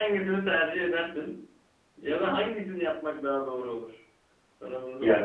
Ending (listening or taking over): taking over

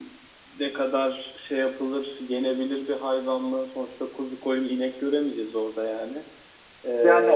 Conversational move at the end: taking over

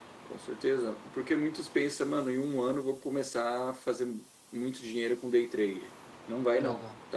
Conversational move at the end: listening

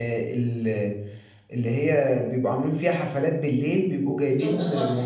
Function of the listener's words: listening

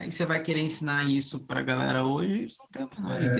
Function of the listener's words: taking over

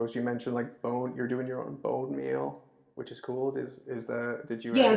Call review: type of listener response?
taking over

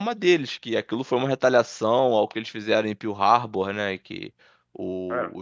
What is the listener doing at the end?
listening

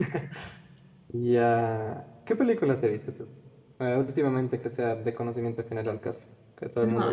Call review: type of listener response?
taking over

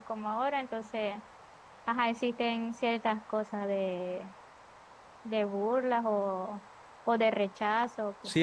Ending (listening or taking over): taking over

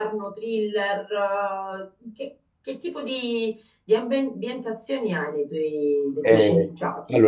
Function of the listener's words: taking over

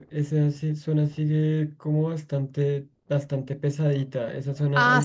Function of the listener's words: taking over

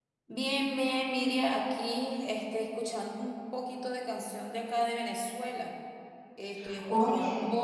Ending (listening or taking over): listening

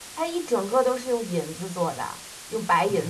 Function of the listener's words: taking over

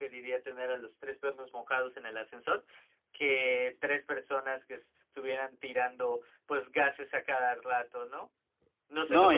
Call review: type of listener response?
taking over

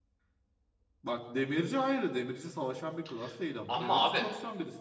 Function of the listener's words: listening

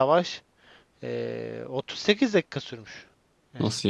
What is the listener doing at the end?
listening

